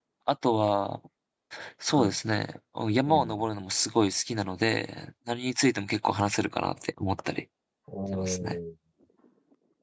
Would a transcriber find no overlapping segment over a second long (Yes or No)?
Yes